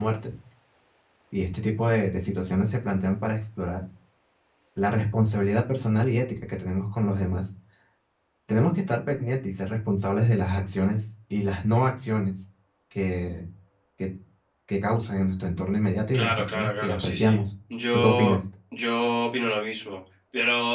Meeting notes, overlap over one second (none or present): present